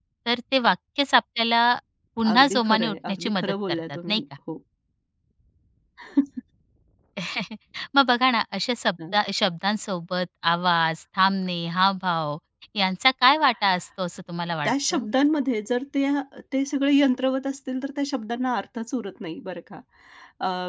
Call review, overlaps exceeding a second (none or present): present